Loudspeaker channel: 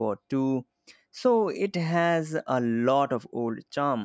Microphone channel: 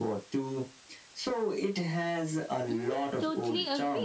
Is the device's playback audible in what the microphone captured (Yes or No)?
Yes